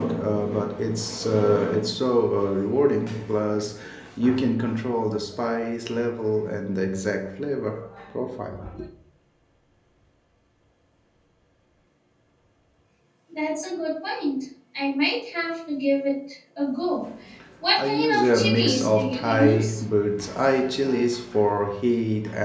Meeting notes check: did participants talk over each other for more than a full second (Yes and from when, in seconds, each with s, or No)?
Yes, from 17.8 s